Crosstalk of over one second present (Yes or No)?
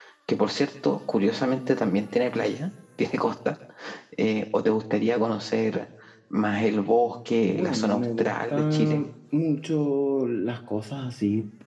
Yes